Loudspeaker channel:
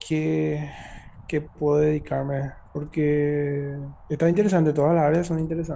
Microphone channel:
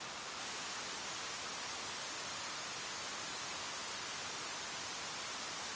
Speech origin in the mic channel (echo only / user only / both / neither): neither